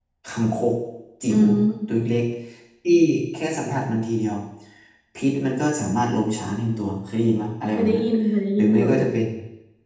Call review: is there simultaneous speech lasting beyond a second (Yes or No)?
No